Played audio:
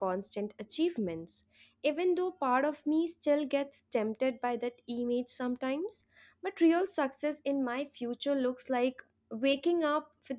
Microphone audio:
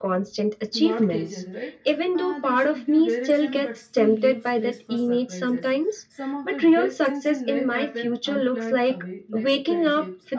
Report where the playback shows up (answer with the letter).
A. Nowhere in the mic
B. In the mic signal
B